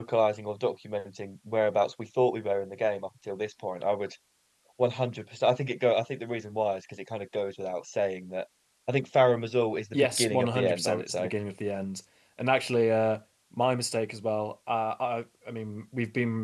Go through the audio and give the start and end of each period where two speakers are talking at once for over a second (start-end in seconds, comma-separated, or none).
9.9-11.3